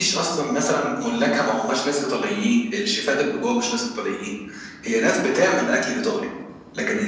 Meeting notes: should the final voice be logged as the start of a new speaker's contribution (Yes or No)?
No